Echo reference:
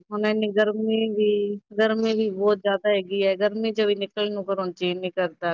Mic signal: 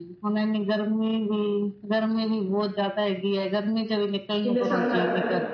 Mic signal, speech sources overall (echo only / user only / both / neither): both